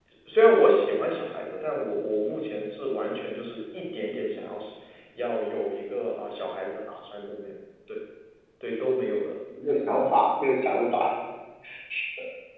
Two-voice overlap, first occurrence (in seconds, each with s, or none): none